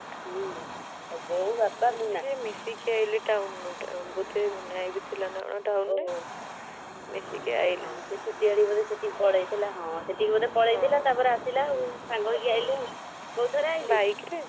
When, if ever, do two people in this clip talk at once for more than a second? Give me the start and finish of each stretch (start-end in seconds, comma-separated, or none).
none